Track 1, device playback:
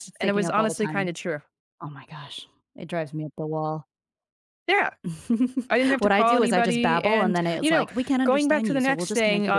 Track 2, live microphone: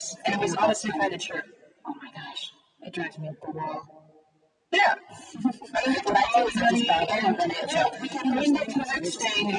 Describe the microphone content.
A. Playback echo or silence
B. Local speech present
A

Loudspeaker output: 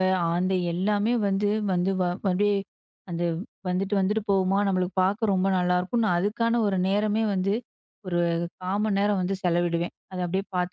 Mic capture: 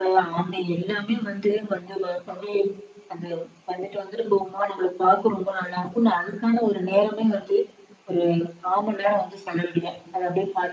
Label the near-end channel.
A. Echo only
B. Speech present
A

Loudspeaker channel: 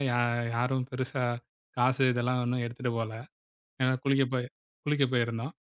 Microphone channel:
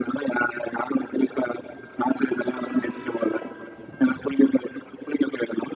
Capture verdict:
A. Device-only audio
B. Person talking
A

